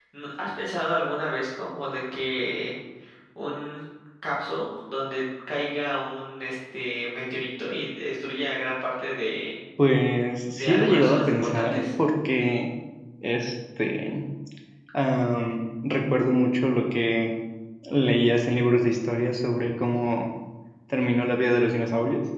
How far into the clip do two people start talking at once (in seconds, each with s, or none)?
10.6 s